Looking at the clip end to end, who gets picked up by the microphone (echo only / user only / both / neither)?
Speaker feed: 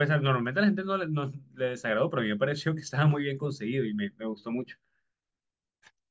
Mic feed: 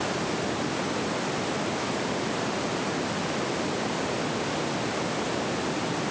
neither